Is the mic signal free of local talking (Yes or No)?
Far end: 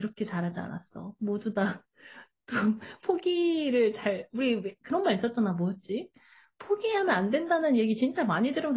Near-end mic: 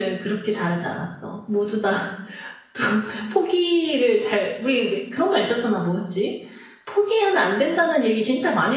Yes